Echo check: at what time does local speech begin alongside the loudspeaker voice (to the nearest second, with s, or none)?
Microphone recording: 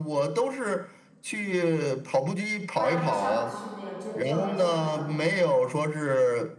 3 s